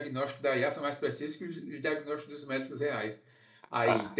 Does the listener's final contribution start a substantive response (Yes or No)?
No